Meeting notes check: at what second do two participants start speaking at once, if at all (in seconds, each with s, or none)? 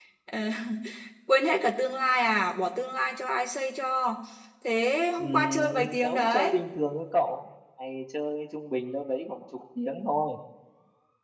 5.2 s